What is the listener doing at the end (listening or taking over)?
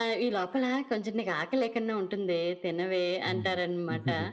taking over